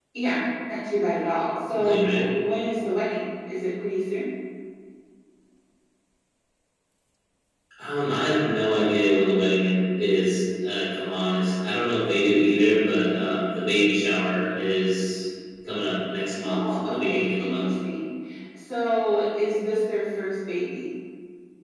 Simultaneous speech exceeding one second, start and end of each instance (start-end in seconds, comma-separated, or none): 16.4-17.7